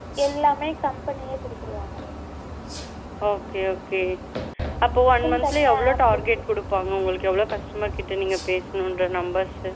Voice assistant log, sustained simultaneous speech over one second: present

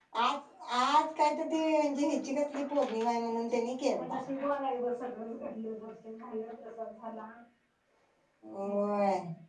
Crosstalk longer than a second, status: none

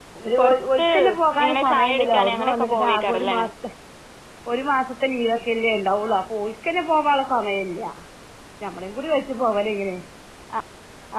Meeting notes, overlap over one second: present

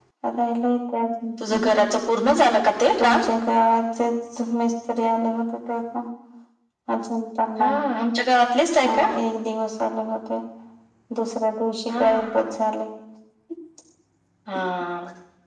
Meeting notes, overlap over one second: none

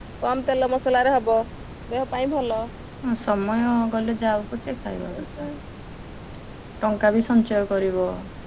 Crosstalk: none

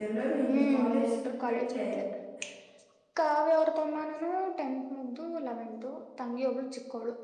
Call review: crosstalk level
present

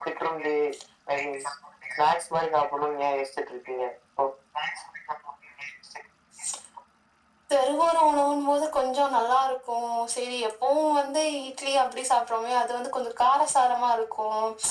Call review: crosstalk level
none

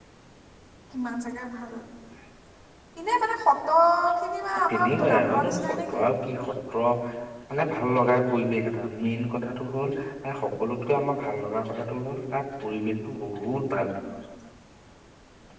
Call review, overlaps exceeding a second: present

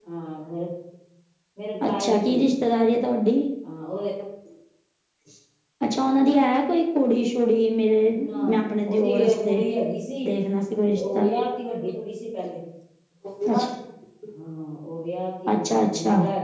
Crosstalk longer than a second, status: present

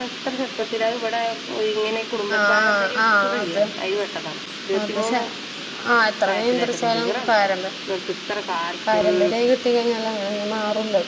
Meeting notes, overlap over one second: present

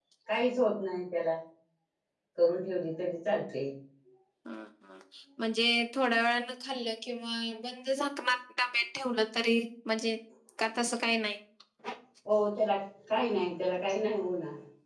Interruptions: none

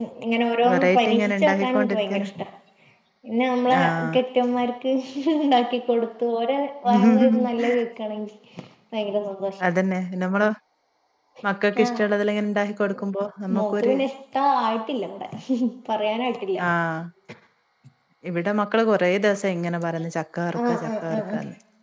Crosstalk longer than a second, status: present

